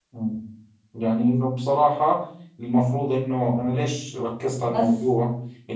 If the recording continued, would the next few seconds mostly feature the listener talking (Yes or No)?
No